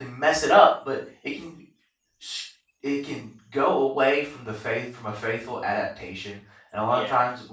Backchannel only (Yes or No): Yes